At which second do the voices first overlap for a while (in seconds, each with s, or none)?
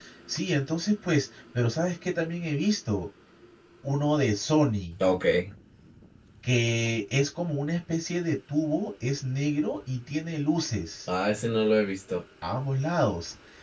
none